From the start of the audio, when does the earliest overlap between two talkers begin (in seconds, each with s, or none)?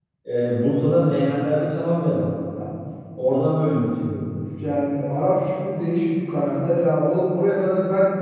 none